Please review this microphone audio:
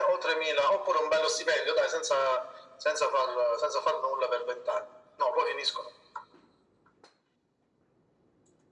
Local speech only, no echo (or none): none